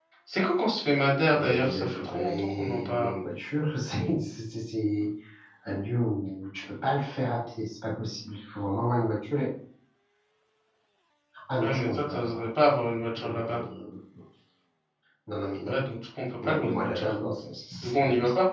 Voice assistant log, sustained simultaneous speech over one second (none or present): present